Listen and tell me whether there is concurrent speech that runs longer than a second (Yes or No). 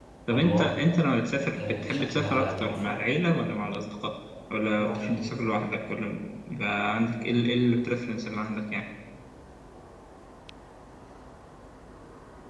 Yes